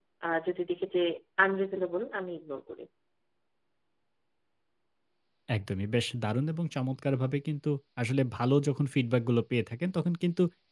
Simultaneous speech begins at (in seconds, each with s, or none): none